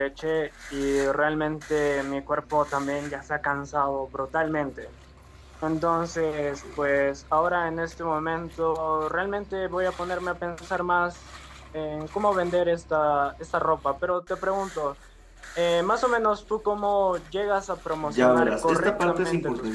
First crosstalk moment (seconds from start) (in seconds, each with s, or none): 18.0 s